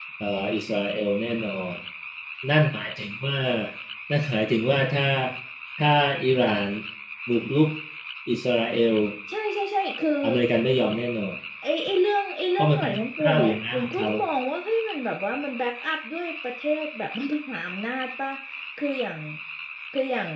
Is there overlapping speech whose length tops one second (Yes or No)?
Yes